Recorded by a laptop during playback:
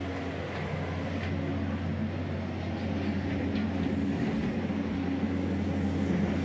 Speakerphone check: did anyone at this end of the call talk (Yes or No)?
No